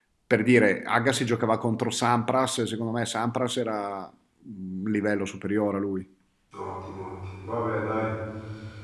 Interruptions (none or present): none